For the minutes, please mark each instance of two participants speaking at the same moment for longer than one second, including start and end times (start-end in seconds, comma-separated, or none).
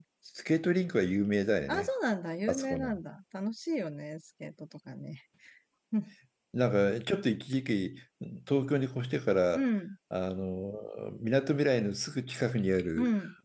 none